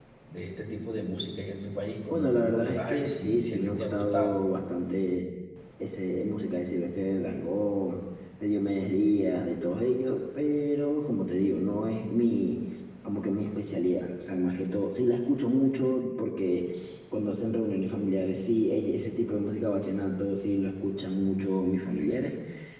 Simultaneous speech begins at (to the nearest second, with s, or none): 2 s